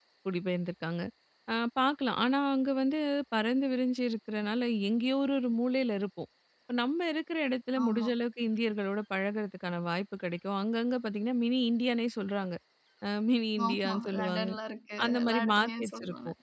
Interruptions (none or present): present